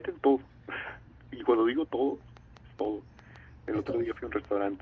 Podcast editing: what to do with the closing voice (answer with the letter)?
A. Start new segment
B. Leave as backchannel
B